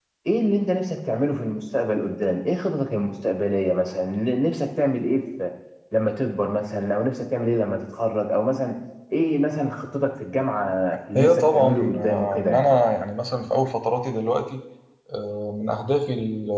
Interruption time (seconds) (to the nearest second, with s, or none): 11 s